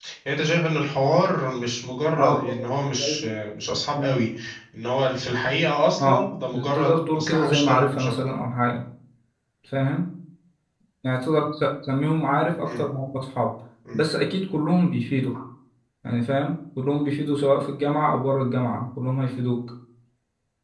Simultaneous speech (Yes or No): Yes